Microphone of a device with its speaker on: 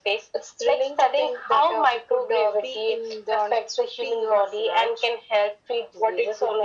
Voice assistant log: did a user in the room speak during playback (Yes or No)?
No